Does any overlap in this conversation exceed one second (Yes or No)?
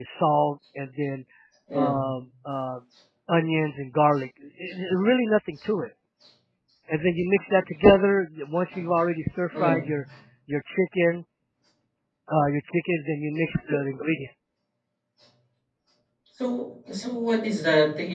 No